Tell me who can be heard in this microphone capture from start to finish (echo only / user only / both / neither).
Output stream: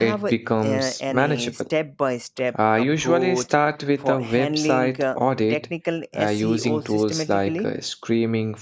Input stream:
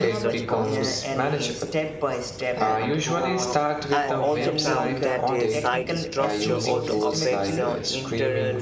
both